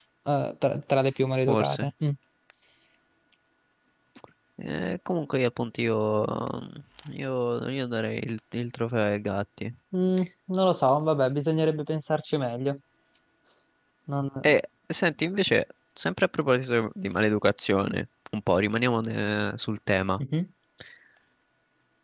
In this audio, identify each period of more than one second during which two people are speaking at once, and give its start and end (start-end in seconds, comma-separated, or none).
none